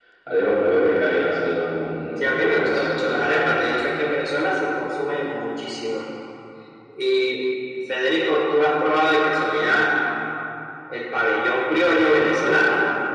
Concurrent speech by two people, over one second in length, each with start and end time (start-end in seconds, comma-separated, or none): 2.2-3.6